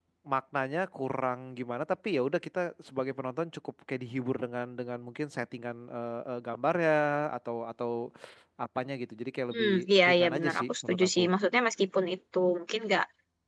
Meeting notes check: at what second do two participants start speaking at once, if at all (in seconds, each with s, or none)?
9.5 s